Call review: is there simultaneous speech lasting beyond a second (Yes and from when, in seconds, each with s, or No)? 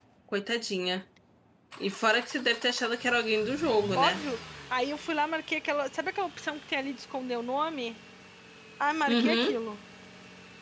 No